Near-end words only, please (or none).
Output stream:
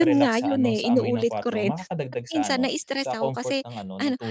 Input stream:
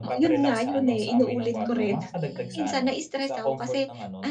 Hmm, okey.